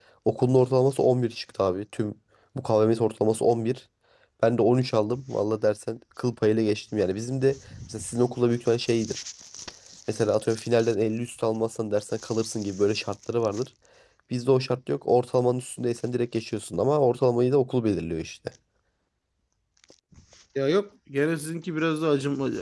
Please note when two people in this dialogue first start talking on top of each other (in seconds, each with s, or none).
none